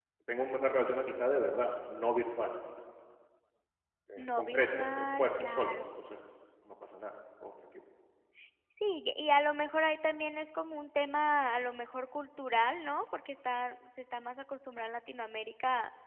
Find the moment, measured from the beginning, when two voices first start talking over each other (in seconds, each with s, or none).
4.2 s